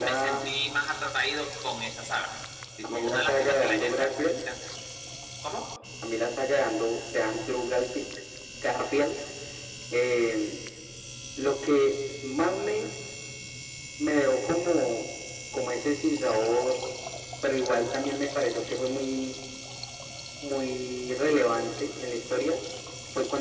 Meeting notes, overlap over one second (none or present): present